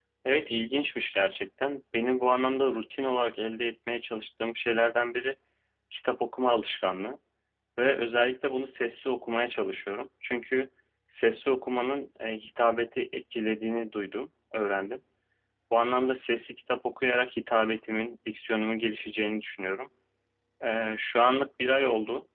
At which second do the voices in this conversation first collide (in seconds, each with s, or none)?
none